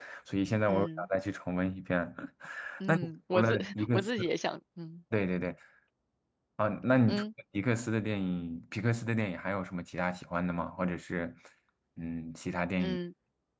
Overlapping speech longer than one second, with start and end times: 2.9-4.1

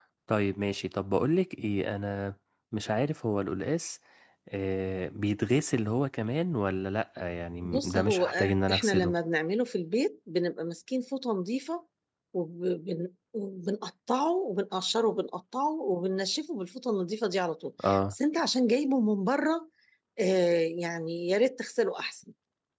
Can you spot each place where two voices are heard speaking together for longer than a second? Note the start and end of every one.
7.6-9.1

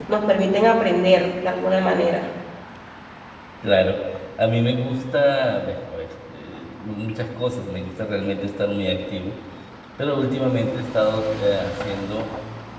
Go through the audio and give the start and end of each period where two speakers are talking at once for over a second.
none

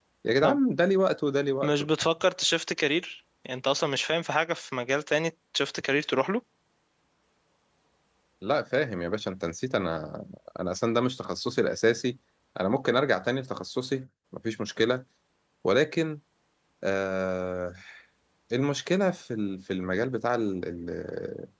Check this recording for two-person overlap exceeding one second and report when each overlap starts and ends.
none

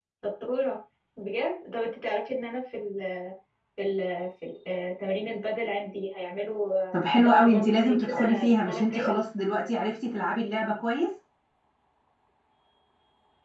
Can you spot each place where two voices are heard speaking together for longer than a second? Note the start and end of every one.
6.9-9.1

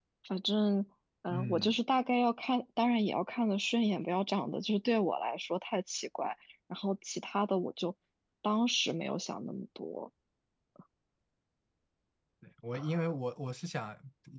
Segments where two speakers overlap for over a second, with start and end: none

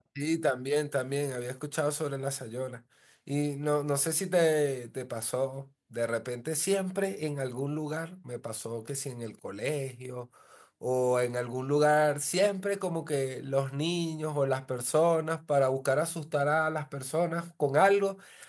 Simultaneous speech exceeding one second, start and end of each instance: none

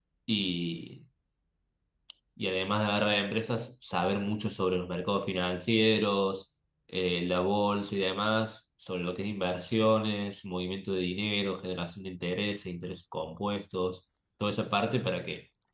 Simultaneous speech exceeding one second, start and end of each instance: none

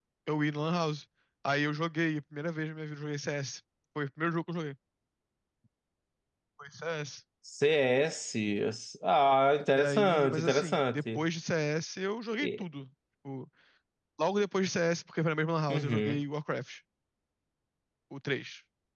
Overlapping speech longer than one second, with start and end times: 9.7-11.2

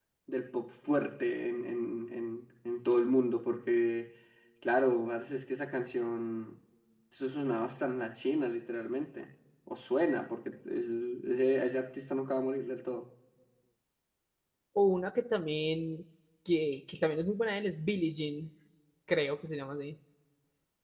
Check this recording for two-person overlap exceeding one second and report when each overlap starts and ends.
none

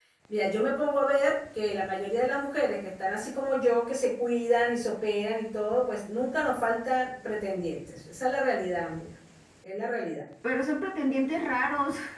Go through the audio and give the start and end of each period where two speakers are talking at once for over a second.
none

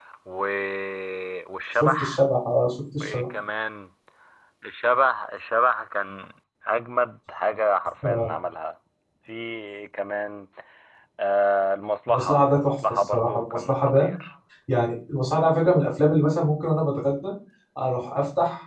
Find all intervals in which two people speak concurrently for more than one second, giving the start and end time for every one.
12.1-14.1

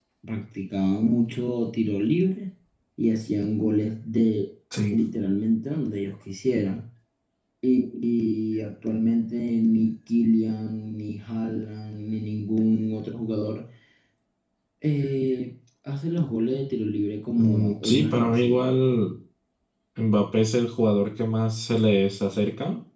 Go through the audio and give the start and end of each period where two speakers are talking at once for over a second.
17.4-18.7

